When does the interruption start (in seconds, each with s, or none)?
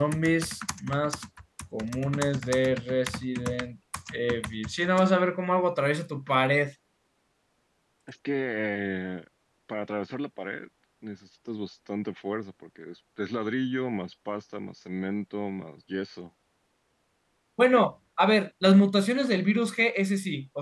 none